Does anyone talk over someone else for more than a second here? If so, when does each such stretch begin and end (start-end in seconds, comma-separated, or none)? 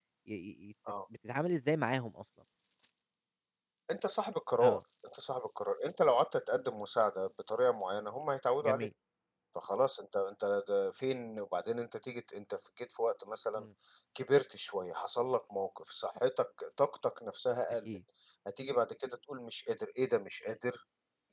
none